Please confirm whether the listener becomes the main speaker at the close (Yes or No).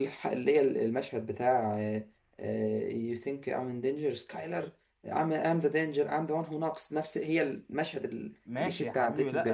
Yes